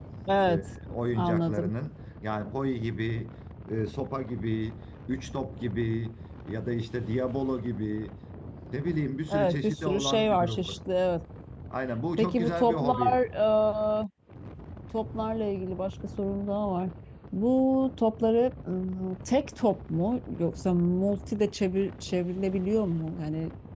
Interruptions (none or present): present